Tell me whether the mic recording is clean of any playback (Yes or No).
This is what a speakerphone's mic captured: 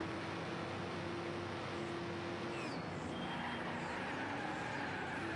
Yes